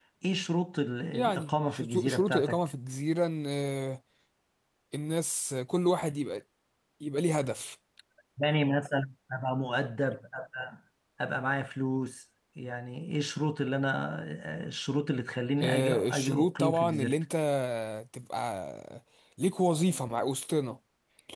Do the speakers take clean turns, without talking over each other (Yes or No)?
No